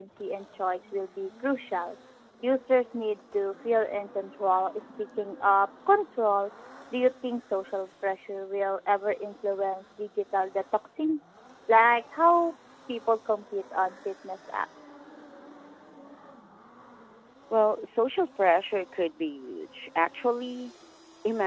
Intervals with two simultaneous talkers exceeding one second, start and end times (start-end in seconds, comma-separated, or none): none